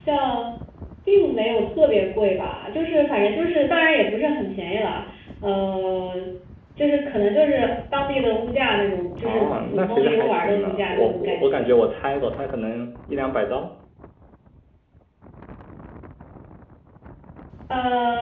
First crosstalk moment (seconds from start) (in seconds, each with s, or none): 9.2 s